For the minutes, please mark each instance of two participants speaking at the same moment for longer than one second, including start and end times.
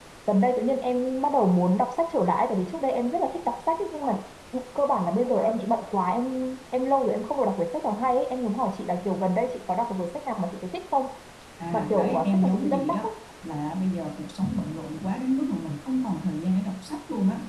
11.7-13.1

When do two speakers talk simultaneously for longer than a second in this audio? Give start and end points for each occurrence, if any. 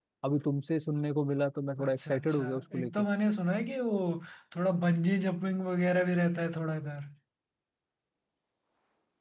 1.8-3.0

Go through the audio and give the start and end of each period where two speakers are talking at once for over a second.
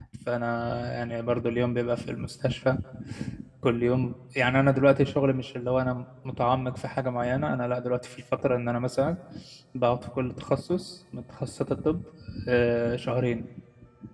none

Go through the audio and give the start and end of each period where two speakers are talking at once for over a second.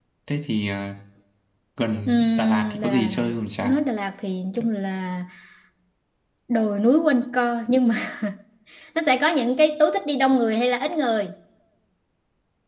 2.1-3.8

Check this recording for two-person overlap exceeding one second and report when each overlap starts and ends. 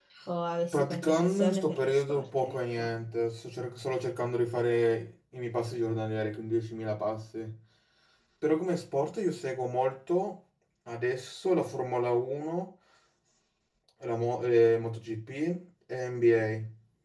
0.7-2.9

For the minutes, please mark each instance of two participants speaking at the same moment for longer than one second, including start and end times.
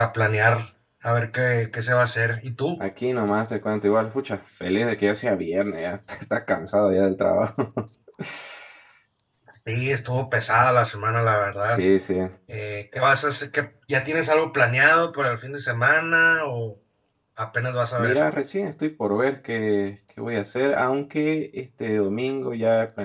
none

